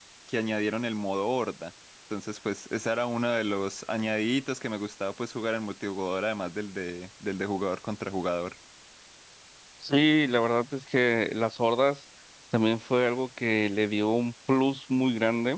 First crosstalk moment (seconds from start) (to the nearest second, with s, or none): none